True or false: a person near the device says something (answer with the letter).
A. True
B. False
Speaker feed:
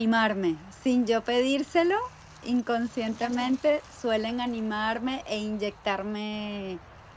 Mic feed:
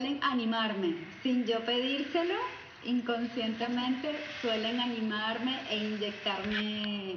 B